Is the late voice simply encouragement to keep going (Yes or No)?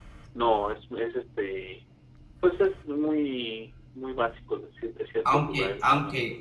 No